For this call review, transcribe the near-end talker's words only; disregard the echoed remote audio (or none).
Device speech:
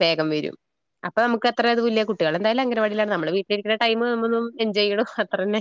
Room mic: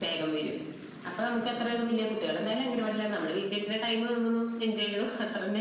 none